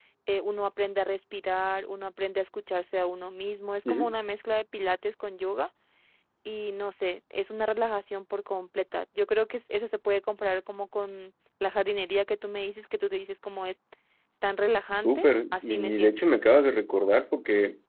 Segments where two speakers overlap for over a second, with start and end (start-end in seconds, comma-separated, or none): 15.0-16.2